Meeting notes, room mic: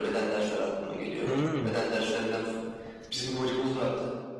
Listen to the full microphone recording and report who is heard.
both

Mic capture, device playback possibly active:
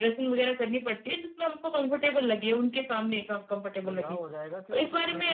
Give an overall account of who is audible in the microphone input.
both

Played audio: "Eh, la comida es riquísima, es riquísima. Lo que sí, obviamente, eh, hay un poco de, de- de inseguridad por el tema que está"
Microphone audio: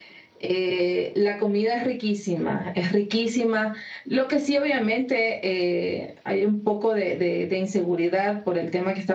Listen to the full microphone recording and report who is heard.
echo only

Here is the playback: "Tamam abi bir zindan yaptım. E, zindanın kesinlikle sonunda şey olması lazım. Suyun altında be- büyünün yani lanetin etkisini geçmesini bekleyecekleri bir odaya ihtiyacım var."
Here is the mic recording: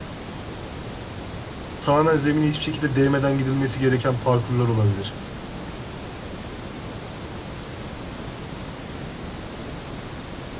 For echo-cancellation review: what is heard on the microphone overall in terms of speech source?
user only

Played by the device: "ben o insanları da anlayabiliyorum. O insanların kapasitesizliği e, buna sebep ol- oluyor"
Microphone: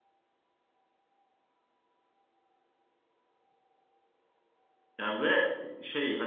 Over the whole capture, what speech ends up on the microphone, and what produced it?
user only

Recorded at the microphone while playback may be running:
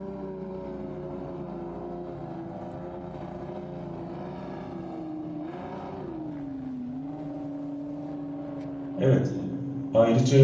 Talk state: user only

